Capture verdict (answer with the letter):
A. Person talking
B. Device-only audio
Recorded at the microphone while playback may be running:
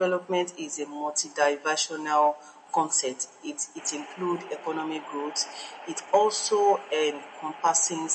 B